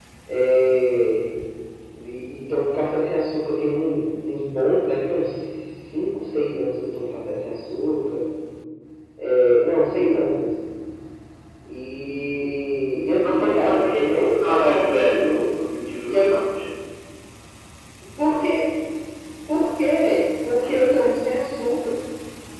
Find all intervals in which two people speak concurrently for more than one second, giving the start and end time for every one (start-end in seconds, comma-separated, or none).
13.2-15.5